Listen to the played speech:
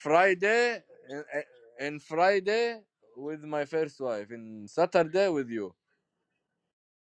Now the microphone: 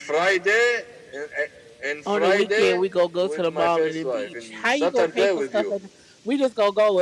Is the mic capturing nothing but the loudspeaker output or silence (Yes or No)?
No